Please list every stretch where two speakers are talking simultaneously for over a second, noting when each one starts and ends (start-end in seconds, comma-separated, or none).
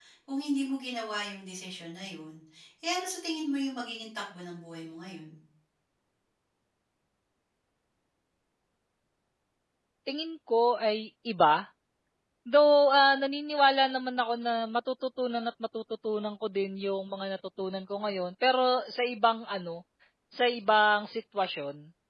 none